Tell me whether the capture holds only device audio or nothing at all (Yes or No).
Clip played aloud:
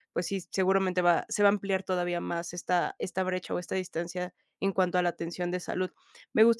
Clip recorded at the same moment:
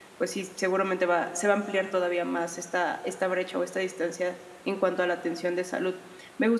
Yes